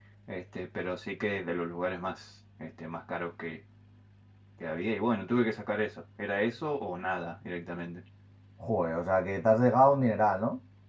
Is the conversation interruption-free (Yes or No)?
Yes